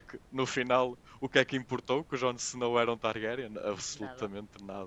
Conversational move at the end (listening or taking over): taking over